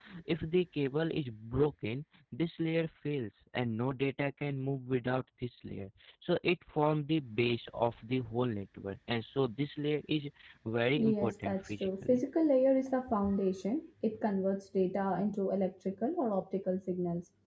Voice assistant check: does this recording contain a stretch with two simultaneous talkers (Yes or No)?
Yes